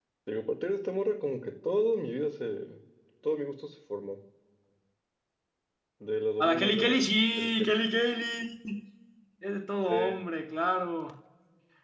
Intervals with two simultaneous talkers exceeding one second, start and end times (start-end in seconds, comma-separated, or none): 6.4-7.7